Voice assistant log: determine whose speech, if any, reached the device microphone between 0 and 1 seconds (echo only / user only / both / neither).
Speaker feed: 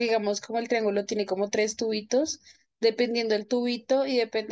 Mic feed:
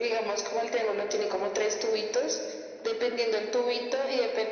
echo only